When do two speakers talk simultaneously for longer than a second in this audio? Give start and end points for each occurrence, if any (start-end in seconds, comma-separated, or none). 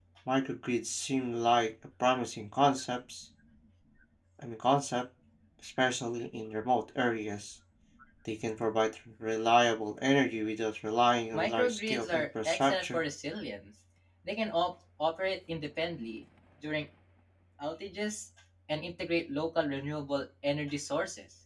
11.3-13.0